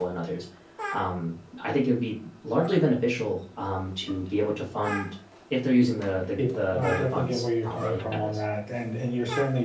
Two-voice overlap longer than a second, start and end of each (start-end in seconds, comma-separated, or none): 6.4-8.4